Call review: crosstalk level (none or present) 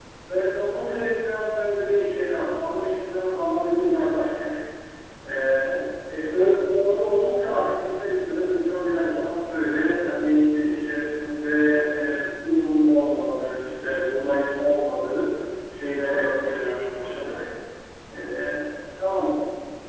present